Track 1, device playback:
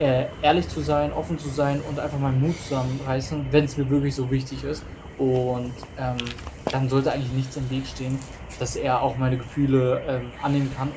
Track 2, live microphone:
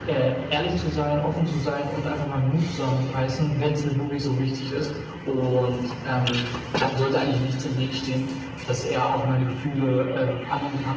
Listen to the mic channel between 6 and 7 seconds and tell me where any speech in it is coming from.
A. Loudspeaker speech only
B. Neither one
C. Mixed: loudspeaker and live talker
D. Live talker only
A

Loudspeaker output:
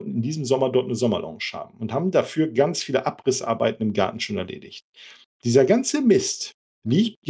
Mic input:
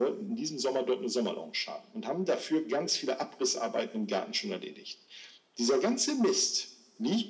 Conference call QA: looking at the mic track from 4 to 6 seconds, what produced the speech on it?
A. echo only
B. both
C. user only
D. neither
A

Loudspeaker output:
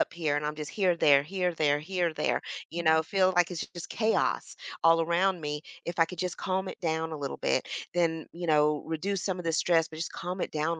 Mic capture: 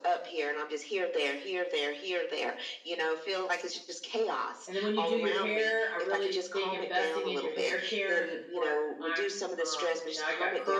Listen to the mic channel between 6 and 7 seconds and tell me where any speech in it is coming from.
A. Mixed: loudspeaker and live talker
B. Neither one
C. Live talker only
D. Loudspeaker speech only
A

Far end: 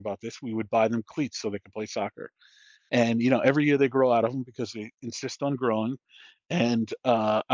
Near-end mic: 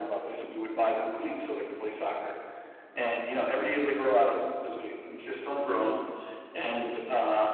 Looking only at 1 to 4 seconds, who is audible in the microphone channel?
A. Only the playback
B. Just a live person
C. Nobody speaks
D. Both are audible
A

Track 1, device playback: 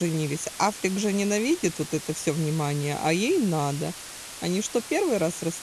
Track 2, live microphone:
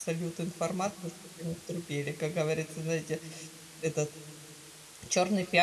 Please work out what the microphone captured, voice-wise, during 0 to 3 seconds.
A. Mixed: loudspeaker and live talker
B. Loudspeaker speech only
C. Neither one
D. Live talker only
D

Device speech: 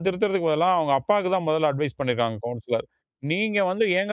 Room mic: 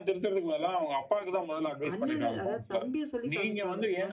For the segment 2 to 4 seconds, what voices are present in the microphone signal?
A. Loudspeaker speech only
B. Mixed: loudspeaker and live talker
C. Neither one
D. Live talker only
B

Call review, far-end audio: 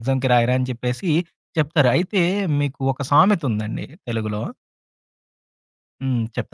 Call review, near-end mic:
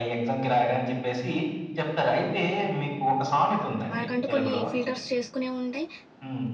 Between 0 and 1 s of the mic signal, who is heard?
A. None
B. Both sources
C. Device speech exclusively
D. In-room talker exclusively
C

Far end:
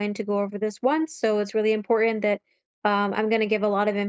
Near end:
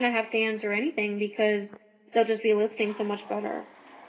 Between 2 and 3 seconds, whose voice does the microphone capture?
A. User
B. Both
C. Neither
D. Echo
A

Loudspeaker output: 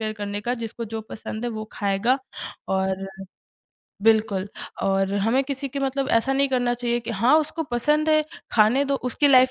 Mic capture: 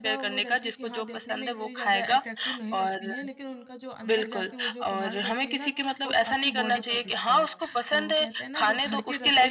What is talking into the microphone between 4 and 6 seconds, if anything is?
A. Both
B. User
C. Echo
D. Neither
A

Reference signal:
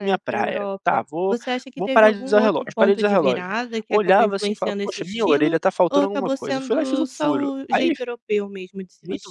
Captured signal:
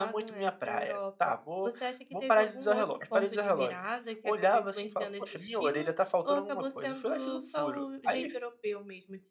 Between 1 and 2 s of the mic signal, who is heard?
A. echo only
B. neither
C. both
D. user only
A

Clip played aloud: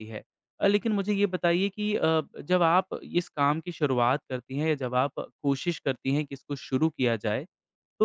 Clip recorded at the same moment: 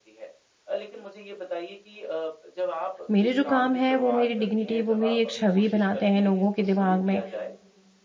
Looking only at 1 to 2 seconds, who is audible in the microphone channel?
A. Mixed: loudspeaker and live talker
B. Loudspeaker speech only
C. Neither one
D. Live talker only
B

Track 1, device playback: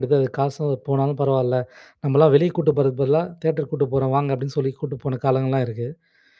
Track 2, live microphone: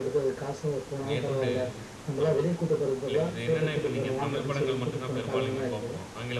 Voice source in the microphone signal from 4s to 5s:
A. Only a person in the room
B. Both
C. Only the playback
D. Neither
B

